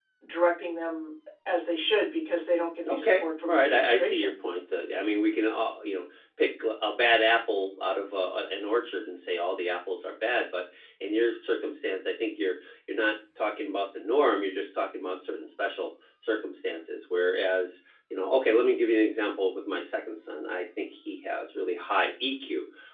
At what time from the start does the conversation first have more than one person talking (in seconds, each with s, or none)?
2.9 s